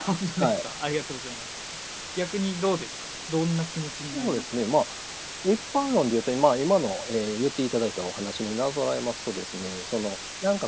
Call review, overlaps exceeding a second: none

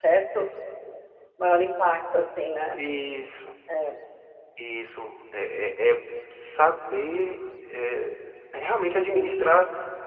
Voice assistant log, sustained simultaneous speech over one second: none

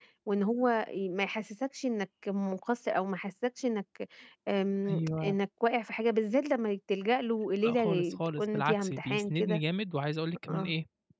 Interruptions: present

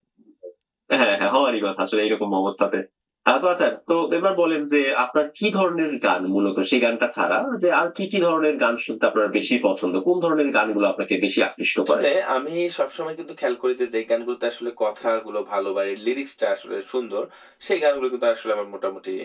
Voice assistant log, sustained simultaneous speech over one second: none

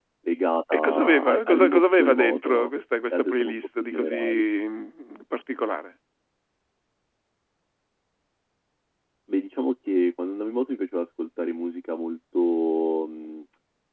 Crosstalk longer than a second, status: present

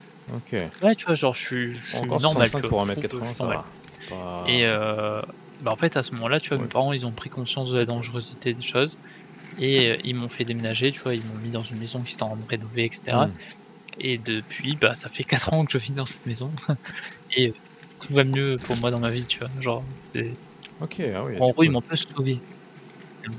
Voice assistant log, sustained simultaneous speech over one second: present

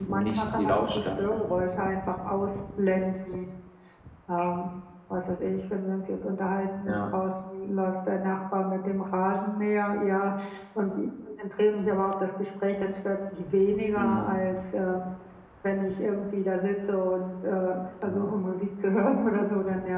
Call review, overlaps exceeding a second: present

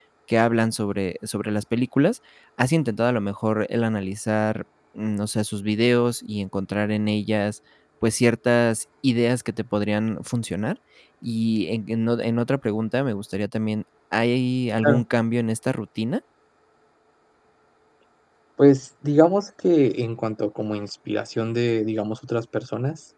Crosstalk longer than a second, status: none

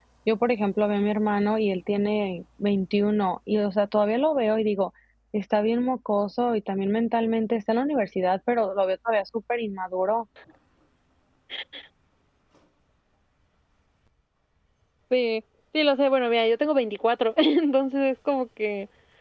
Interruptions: none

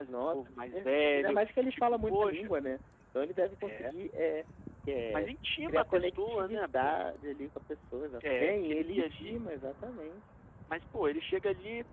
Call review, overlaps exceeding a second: present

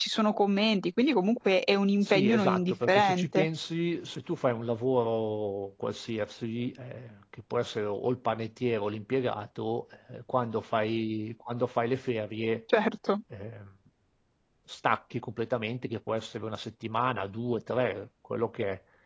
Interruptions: present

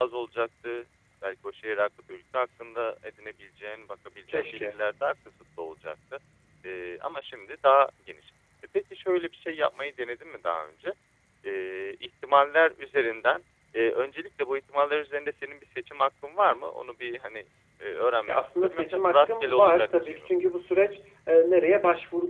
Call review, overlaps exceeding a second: present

